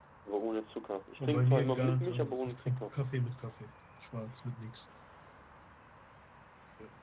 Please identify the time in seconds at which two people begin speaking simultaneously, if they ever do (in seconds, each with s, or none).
1.2 s